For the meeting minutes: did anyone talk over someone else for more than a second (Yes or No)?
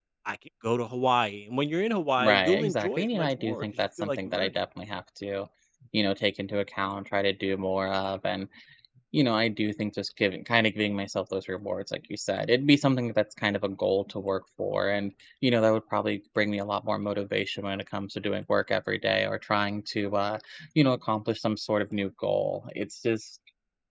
Yes